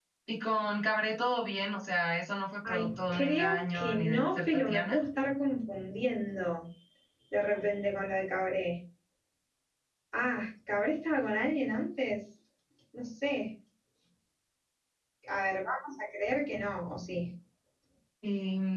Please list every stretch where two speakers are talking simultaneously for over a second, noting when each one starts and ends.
2.7-5.0

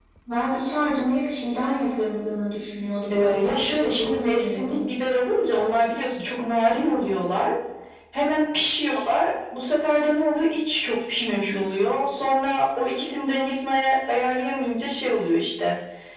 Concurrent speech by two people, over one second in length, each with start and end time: 3.1-4.8

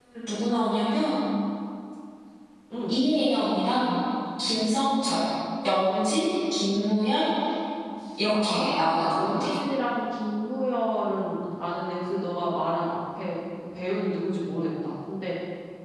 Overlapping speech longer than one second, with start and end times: 8.3-9.5

